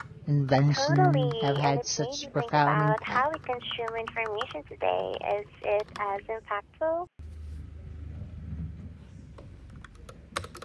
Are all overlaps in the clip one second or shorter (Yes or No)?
No